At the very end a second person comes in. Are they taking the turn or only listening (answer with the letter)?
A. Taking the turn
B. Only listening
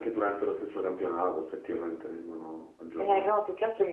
A